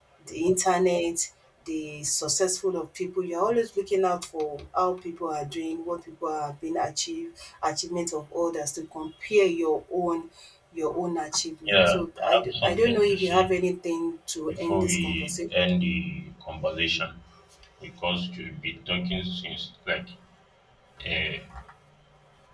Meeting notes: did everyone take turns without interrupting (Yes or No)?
No